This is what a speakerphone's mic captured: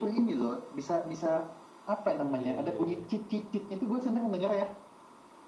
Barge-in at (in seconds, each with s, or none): 2.2 s